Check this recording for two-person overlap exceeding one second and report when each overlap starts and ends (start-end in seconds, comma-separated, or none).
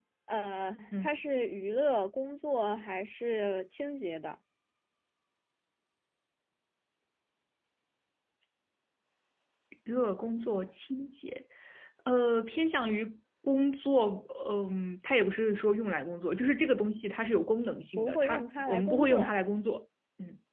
18.0-19.3